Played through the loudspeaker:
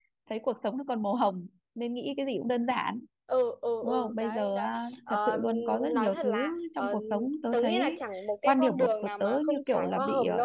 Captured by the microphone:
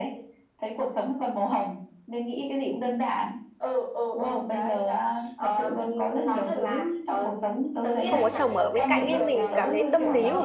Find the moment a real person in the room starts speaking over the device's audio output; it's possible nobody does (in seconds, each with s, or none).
8.0 s